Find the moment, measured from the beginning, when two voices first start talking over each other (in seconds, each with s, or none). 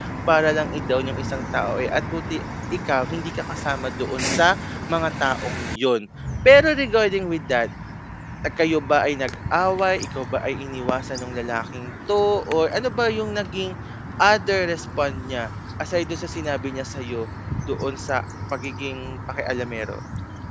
none